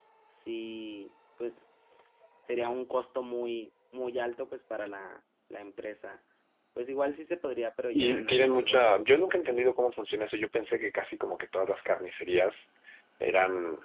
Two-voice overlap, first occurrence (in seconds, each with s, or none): 7.9 s